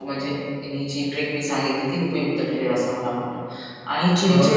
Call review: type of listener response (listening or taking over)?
listening